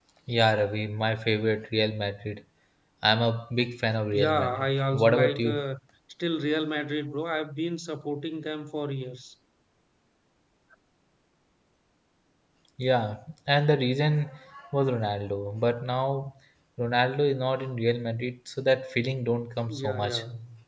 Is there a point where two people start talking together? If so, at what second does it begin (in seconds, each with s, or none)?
4.1 s